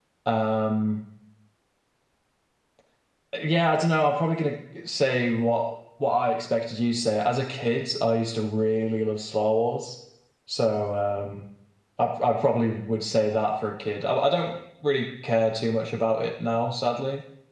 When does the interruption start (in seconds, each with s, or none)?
none